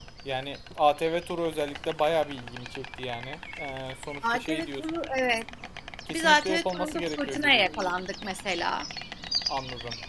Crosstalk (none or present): present